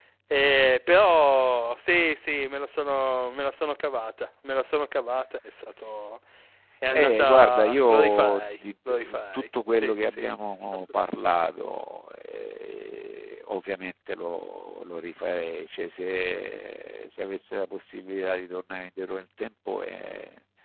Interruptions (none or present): present